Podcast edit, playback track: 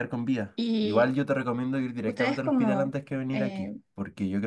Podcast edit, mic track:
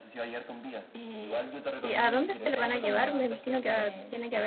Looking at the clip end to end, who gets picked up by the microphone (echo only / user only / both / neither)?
both